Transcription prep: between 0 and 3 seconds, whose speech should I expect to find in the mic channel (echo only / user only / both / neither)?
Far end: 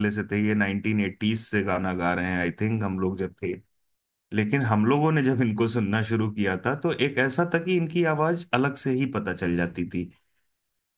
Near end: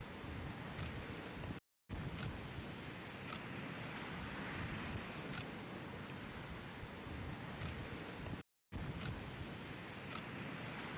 neither